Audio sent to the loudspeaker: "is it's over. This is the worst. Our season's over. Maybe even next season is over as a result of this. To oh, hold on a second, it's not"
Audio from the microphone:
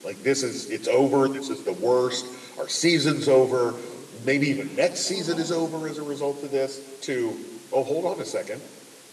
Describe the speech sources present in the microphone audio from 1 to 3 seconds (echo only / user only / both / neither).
echo only